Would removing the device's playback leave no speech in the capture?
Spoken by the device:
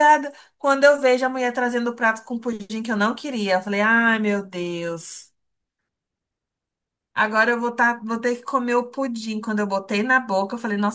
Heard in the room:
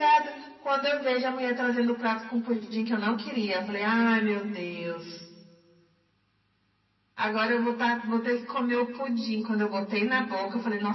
Yes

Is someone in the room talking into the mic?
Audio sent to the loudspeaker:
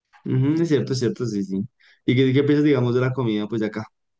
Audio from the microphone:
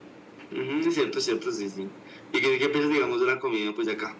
No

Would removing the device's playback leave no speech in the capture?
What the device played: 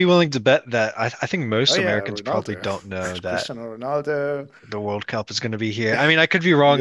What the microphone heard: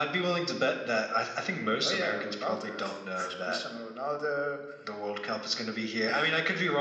Yes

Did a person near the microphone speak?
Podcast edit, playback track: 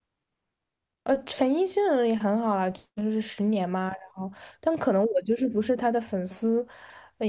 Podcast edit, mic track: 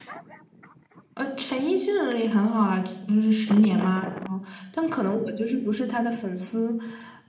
No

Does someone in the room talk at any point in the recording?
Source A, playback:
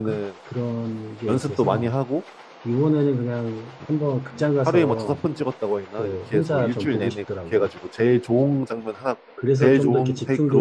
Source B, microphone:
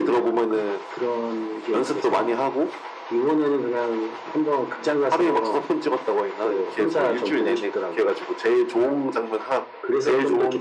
No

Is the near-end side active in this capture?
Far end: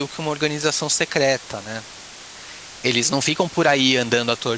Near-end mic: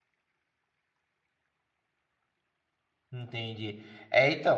Yes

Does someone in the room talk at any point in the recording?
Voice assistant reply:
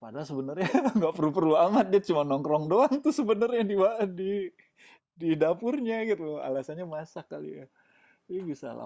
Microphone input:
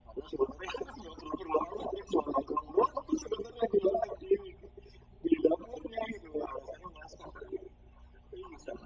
No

